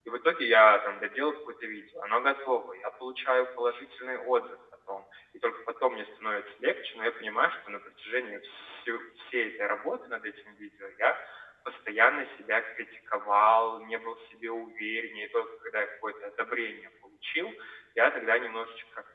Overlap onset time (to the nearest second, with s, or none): none